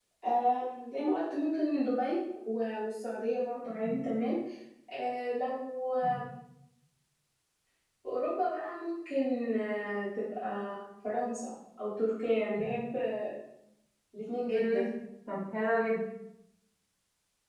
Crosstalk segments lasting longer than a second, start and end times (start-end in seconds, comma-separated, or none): none